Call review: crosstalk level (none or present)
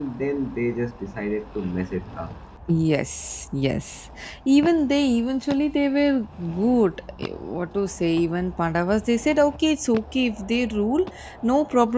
none